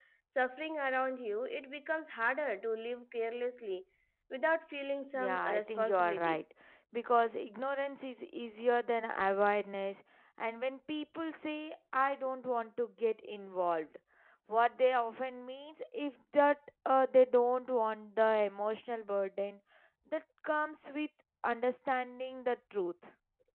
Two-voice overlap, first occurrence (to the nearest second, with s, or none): 5 s